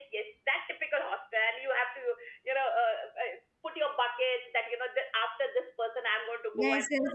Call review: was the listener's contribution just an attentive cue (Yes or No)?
No